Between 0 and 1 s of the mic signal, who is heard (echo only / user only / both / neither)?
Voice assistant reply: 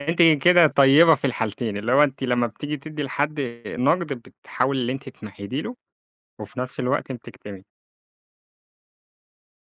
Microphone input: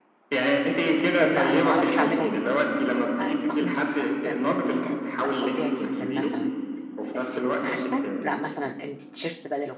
echo only